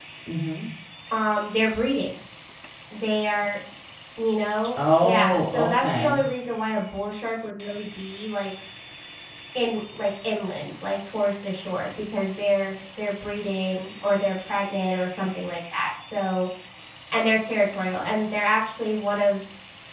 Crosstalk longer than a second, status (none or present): present